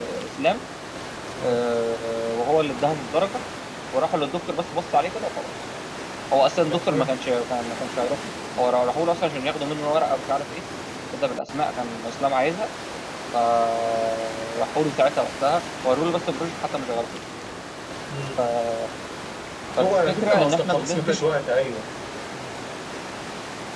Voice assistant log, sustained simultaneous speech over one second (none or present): present